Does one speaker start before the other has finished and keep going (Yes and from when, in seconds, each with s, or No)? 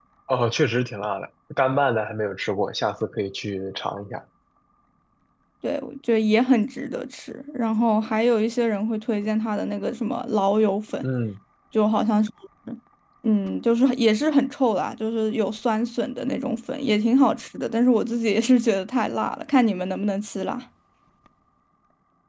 No